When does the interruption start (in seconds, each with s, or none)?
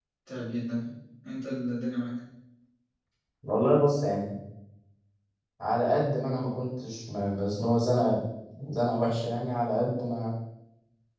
none